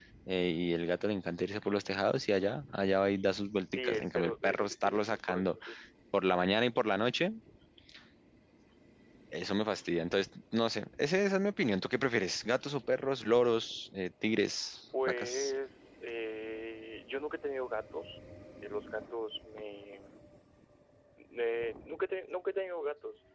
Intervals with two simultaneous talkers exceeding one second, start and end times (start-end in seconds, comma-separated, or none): 3.7-5.6